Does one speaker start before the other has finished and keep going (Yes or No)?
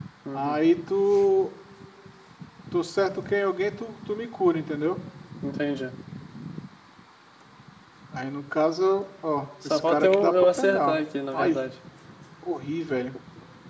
Yes